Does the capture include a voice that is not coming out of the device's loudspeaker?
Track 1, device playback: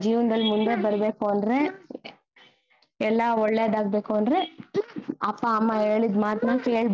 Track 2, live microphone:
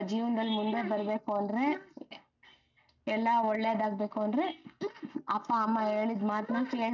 No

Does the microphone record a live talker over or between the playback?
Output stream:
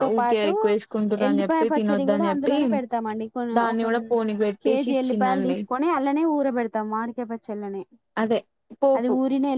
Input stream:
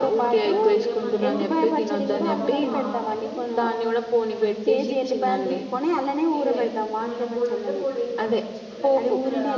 Yes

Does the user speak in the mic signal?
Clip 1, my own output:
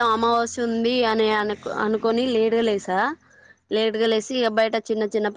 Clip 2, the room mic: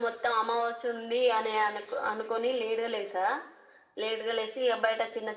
No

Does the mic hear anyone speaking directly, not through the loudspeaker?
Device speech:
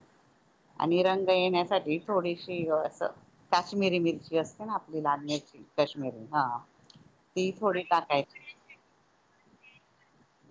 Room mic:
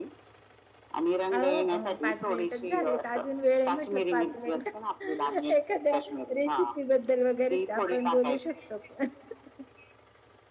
Yes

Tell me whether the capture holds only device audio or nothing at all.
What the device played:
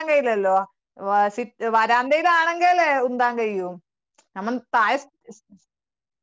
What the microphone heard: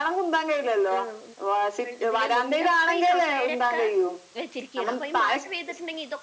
No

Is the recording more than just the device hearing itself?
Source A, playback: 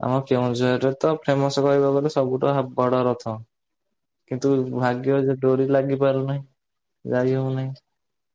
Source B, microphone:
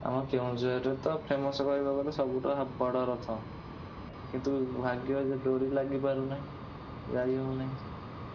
No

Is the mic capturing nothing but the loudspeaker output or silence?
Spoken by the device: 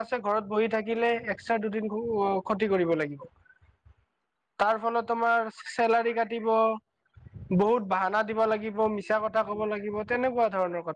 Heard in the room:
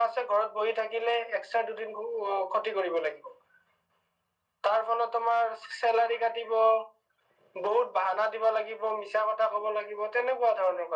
Yes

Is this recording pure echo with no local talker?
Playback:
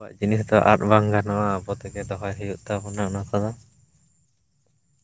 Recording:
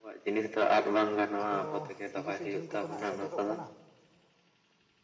No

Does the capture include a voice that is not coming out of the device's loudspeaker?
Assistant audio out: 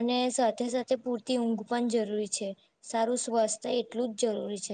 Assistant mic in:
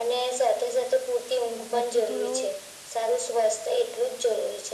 Yes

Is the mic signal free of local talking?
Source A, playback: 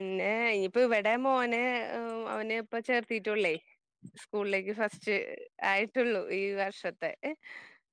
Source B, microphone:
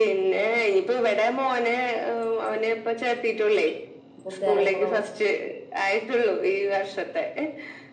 No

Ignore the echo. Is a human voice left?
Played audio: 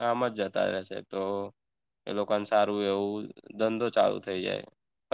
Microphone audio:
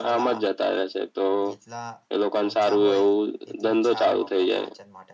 Yes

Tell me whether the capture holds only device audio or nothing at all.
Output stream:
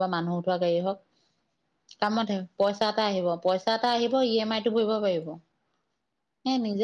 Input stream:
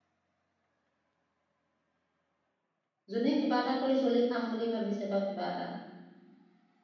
No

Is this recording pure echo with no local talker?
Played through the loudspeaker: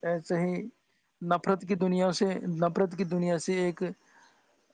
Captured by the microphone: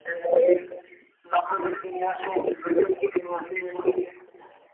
Yes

